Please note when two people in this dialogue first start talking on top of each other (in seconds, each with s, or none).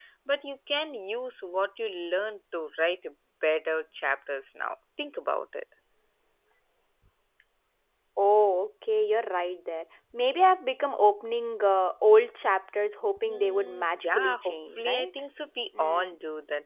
13.2 s